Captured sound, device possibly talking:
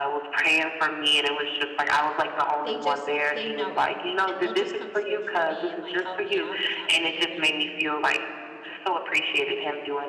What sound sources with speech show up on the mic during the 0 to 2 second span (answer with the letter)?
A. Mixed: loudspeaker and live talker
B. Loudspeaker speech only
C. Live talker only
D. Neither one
B